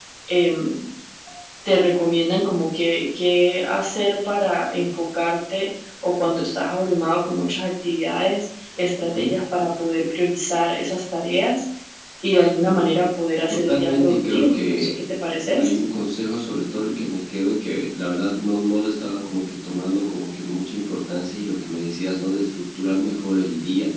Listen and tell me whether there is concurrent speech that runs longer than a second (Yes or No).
Yes